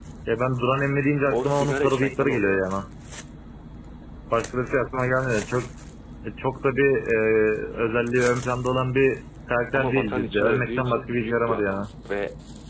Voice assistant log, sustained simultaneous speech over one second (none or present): present